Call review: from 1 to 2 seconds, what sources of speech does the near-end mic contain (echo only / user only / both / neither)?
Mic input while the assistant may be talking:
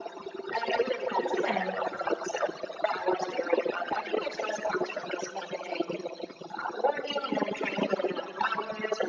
both